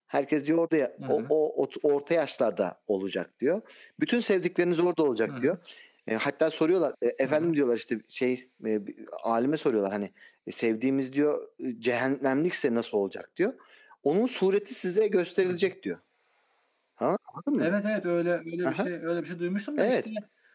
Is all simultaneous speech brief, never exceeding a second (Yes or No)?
Yes